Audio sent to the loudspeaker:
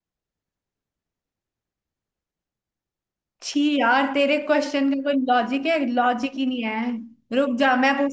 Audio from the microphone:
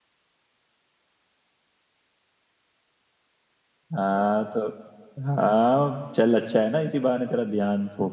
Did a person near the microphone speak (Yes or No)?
Yes